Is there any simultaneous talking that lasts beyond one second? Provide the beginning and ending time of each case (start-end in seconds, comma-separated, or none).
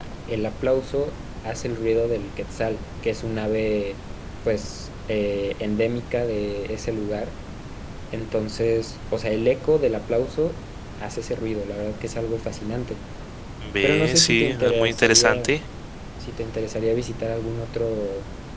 13.8-15.6